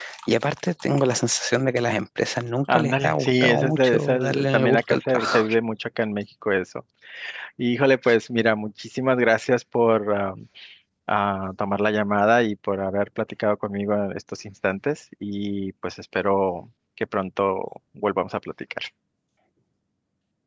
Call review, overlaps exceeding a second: present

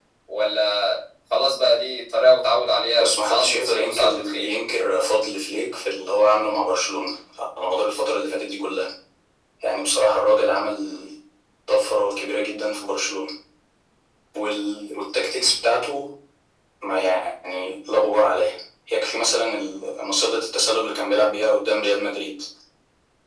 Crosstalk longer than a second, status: present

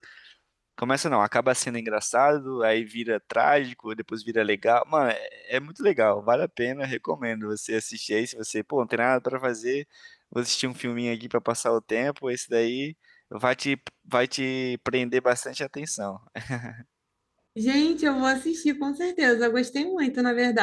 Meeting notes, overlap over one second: none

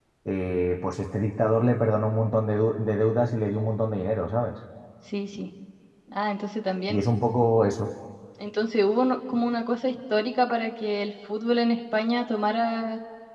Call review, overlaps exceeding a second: none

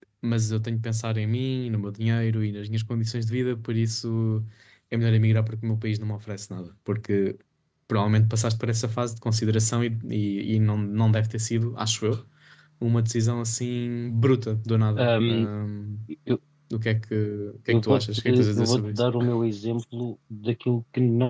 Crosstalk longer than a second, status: present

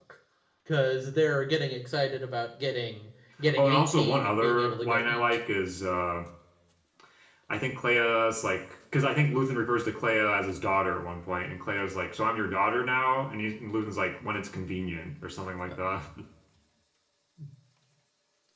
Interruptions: present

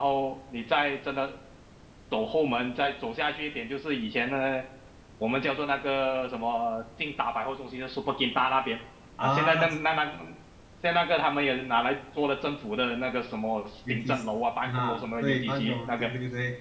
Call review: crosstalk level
present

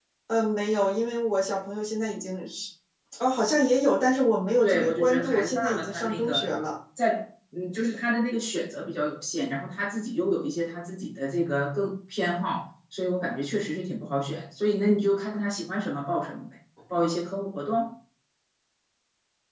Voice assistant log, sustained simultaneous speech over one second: present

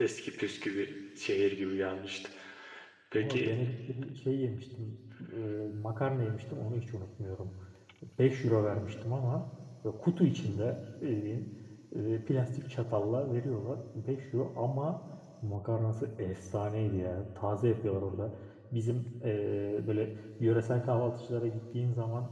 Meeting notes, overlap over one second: none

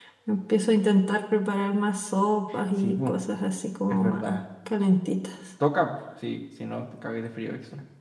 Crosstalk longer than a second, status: none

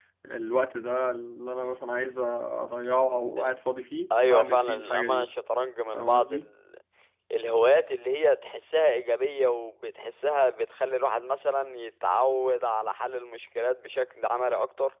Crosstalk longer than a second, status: present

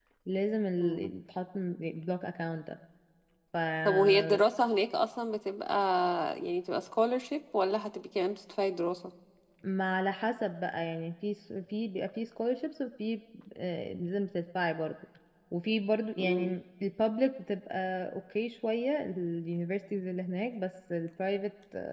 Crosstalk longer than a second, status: none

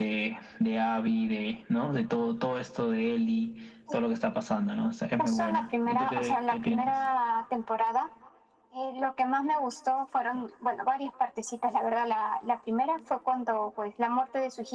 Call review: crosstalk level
present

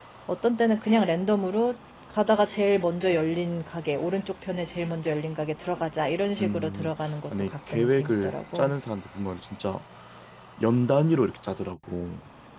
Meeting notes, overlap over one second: present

